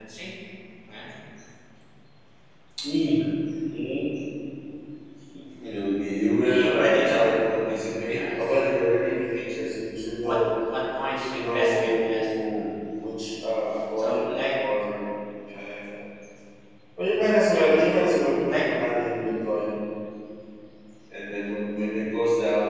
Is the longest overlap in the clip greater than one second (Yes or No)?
Yes